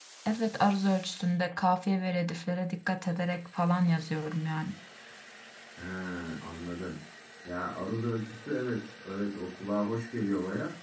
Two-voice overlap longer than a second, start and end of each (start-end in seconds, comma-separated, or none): none